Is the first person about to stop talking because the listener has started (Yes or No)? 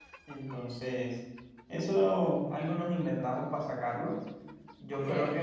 No